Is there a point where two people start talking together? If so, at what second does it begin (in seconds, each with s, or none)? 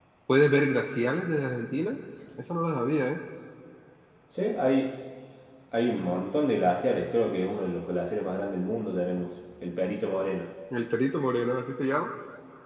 none